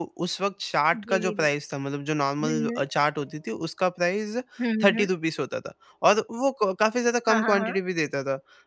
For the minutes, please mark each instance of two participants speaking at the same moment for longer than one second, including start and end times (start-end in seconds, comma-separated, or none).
none